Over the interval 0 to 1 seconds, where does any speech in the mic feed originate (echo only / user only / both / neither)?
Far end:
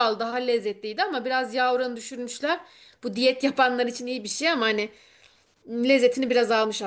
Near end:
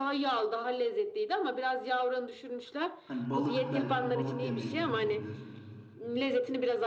echo only